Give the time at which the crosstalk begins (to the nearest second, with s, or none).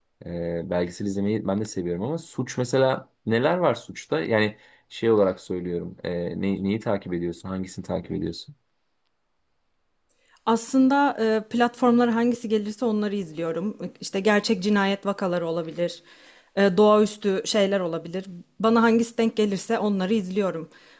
none